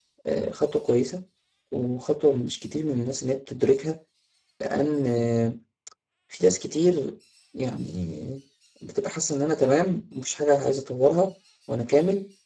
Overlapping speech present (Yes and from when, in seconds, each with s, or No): No